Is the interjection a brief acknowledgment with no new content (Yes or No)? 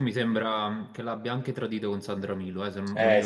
No